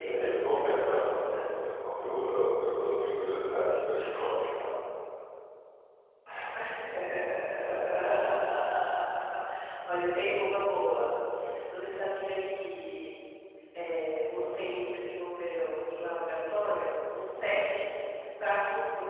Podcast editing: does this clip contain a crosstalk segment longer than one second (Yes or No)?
Yes